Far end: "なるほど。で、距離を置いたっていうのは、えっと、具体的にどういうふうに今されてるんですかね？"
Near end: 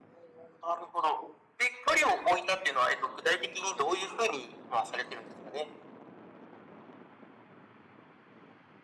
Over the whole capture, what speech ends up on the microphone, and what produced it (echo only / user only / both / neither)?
echo only